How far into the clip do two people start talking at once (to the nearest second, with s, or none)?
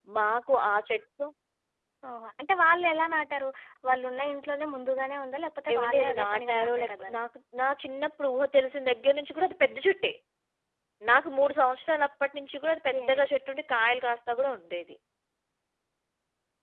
6 s